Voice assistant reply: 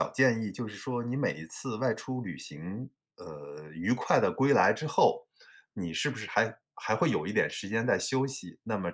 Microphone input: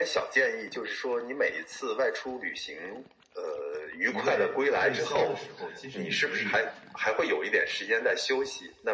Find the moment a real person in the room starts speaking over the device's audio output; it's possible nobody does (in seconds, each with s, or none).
4.1 s